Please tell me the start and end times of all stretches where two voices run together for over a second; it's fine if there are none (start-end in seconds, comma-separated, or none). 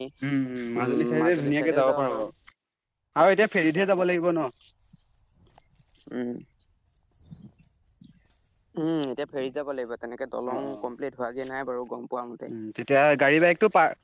0.8-2.2